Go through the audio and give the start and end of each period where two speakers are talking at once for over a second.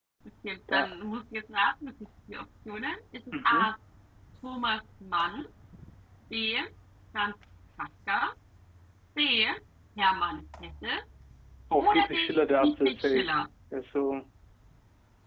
11.8-13.3

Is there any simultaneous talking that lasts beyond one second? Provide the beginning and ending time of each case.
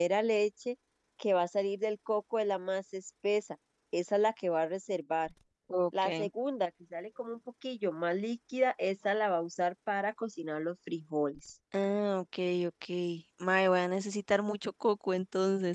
none

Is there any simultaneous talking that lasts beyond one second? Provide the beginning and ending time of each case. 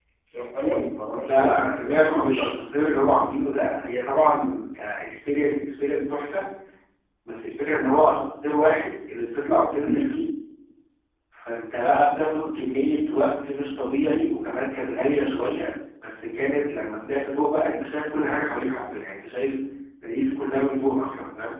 1.2-2.5

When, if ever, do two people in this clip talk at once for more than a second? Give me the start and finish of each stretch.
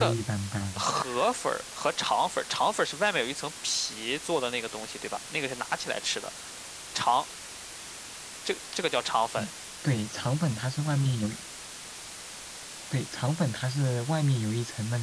none

